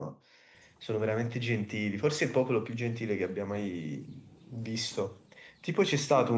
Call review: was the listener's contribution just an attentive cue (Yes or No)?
Yes